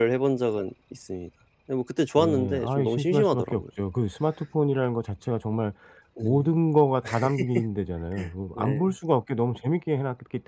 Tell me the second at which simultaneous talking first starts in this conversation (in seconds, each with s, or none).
2.2 s